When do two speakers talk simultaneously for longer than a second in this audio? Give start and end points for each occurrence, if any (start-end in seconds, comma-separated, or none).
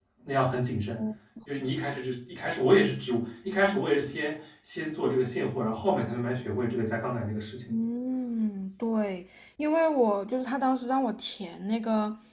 none